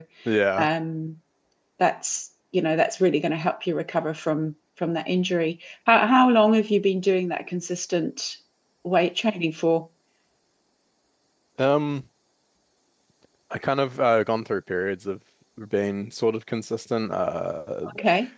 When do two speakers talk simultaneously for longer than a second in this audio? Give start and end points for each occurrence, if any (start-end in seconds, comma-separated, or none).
none